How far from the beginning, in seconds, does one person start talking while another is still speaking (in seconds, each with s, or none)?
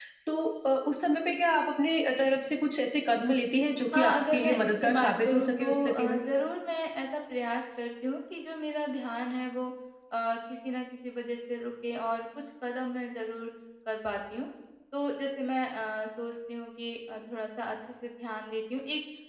3.9 s